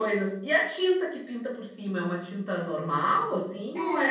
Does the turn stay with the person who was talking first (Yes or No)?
No